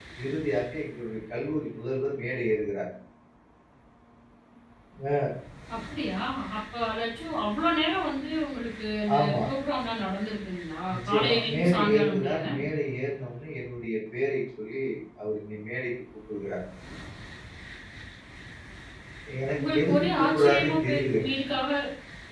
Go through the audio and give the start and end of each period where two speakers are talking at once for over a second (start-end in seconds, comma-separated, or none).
10.9-12.3, 19.6-21.3